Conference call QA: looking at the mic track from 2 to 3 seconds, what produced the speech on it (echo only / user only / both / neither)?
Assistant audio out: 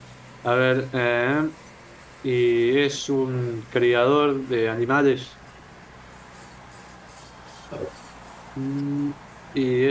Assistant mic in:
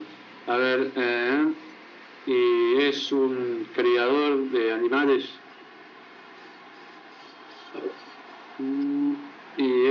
echo only